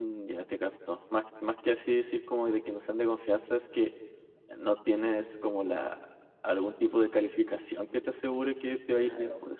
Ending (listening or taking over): taking over